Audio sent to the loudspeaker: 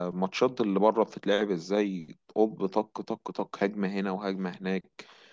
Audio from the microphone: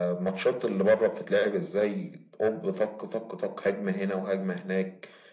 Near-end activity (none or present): none